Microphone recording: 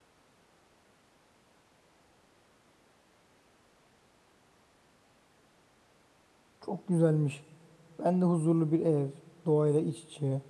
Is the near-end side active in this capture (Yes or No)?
Yes